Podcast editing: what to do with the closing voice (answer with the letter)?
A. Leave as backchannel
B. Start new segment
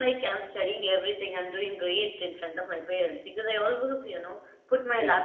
A